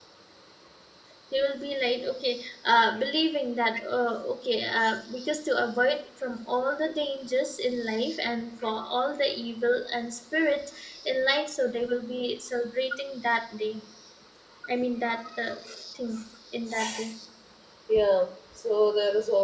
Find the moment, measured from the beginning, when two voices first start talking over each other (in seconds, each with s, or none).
none